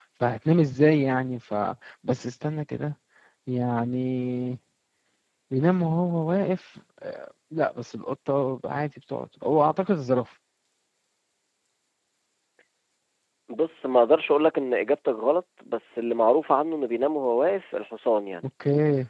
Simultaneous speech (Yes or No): No